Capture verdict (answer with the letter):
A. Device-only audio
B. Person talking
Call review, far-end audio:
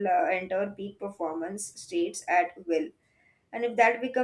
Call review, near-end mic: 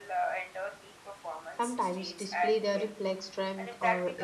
B